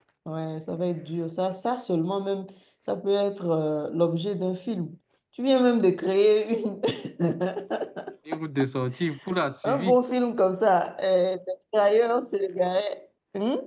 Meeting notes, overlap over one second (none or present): none